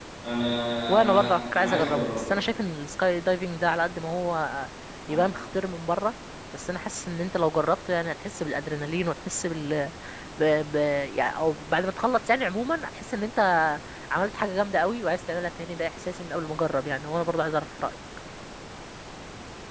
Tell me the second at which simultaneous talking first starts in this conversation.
1 s

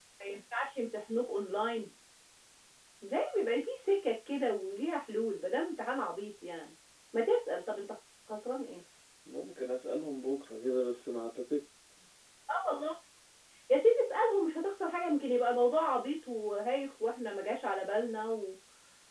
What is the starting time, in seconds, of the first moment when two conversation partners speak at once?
none

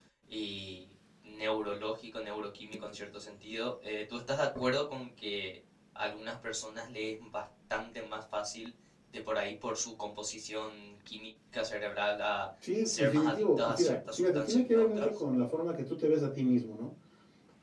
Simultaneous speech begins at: 13 s

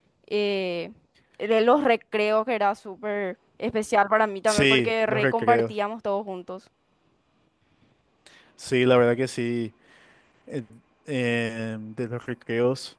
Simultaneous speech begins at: 4 s

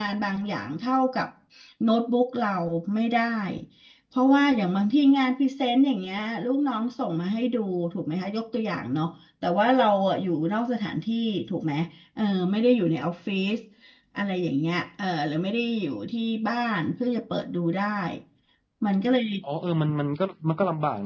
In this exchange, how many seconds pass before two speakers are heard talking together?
none

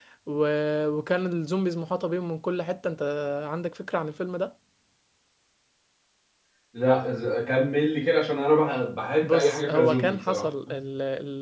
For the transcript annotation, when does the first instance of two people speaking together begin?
9 s

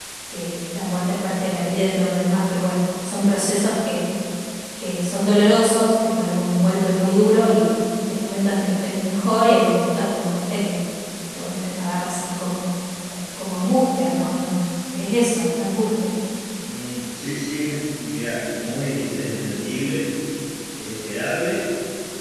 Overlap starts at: none

